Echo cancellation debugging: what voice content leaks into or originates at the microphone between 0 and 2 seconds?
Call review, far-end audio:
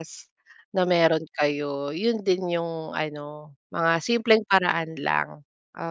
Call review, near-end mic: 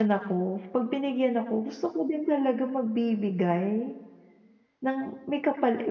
user only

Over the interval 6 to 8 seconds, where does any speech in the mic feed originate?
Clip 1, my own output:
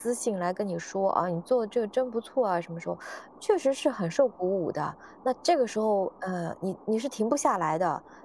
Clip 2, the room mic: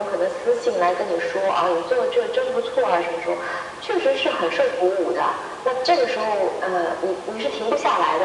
echo only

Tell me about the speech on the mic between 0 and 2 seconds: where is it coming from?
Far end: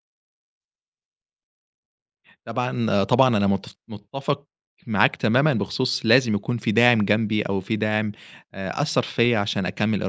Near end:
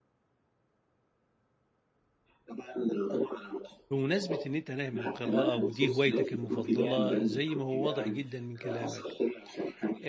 neither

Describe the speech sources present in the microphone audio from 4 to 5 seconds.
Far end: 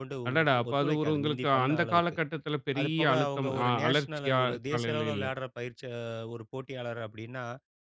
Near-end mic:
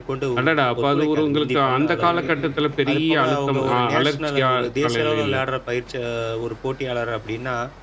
echo only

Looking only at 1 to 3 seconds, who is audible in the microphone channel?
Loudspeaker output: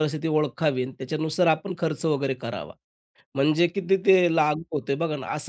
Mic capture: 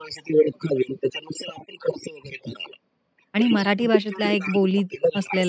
echo only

